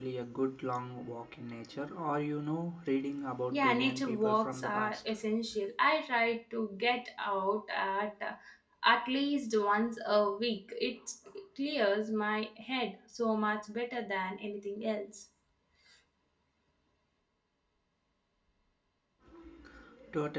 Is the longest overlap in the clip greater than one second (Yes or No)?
Yes